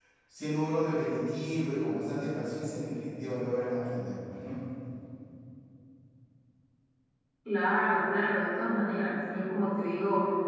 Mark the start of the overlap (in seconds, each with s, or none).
none